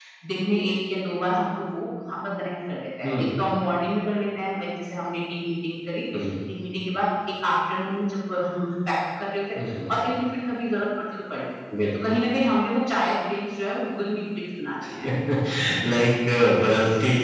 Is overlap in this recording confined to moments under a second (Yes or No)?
Yes